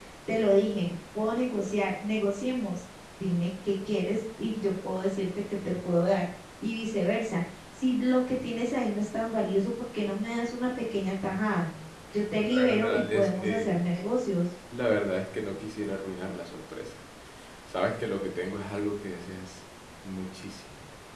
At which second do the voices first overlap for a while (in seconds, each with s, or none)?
12.6 s